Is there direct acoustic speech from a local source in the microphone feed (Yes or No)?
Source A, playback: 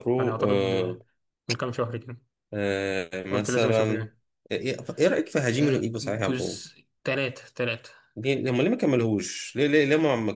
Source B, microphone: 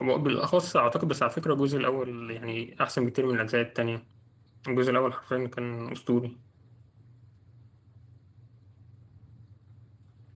Yes